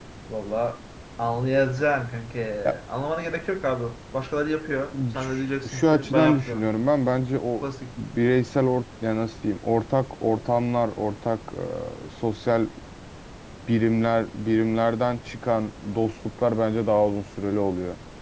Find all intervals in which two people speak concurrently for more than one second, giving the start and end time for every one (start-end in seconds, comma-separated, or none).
5.2-6.7